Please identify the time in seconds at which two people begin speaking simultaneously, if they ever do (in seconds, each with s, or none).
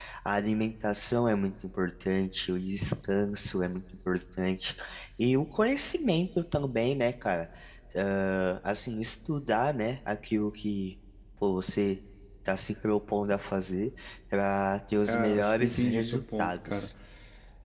15.1 s